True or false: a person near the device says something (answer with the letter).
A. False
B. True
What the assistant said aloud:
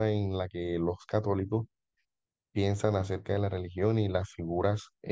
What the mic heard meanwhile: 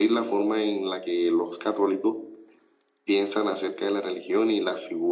A